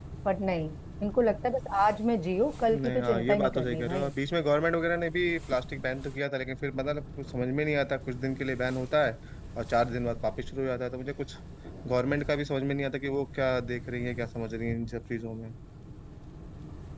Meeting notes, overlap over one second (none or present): present